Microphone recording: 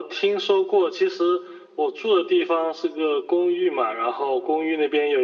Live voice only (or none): none